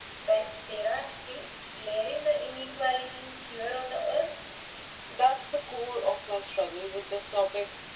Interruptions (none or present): none